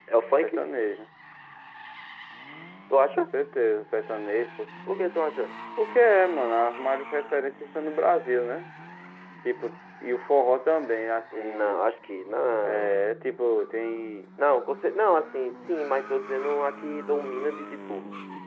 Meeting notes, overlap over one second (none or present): none